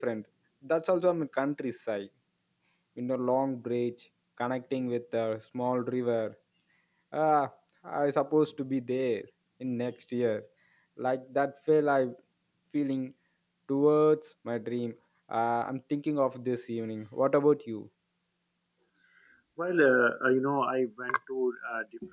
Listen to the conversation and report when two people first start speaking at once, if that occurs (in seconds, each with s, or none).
none